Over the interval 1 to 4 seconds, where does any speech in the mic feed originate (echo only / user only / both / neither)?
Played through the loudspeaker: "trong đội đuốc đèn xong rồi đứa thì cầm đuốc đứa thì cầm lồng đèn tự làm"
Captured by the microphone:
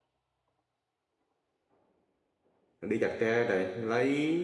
user only